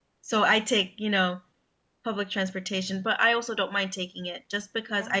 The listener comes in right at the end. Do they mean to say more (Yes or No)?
No